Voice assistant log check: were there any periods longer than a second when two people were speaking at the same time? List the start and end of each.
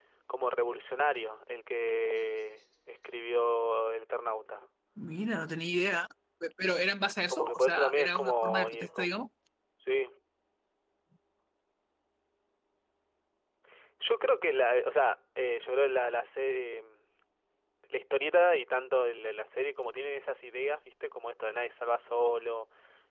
7.3-9.1

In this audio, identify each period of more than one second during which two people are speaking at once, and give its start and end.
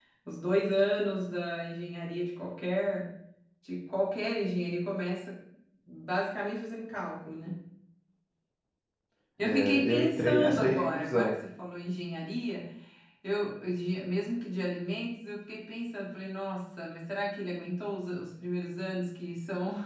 9.4-11.4

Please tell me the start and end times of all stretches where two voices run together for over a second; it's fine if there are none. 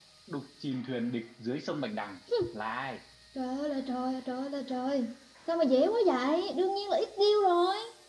none

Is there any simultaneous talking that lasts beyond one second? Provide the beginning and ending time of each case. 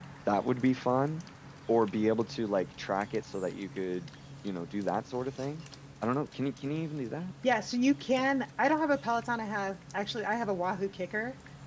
none

